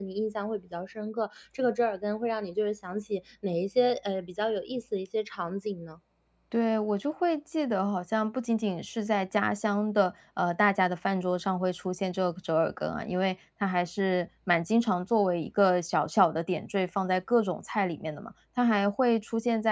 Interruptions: none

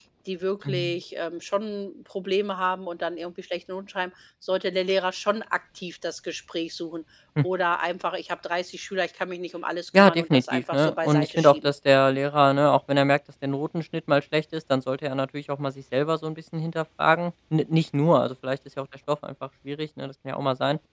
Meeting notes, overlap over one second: present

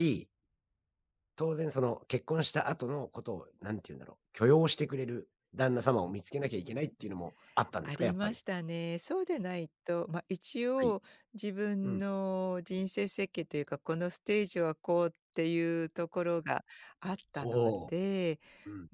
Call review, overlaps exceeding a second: none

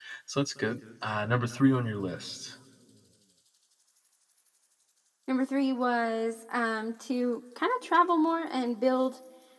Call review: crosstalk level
none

